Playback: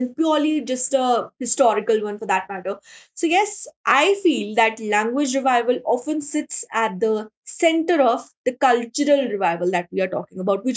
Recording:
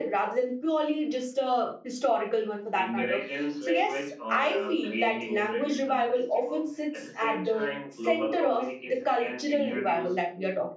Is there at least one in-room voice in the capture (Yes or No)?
Yes